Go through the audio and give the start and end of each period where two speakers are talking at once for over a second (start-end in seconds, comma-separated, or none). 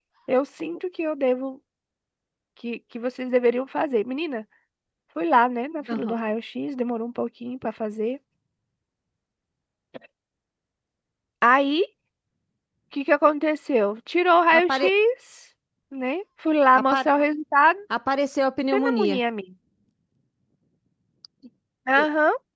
none